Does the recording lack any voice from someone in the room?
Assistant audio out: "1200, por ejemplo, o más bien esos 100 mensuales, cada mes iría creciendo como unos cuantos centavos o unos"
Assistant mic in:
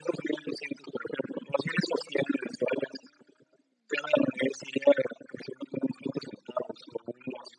Yes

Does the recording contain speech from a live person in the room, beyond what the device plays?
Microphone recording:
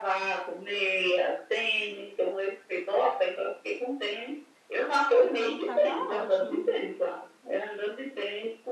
Yes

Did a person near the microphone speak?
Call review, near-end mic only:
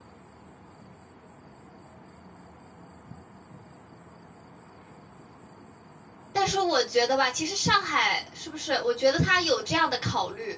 Yes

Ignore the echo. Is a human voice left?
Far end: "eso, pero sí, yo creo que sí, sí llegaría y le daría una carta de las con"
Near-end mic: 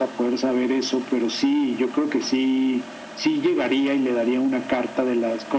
No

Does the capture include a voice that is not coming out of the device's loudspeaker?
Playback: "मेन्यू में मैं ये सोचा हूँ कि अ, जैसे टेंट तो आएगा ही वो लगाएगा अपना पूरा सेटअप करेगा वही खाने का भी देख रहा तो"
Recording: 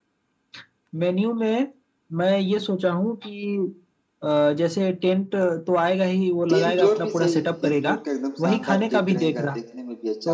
Yes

